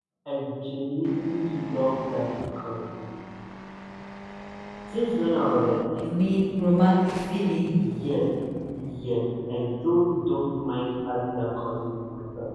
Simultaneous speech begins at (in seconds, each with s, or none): none